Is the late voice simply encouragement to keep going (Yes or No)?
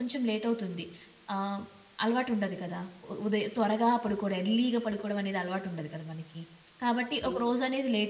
Yes